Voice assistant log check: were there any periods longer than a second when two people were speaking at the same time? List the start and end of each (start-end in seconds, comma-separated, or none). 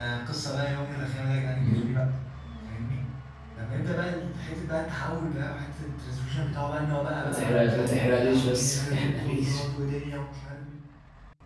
7.2-9.6